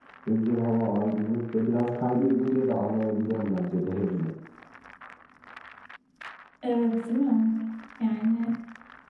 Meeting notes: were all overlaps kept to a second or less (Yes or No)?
Yes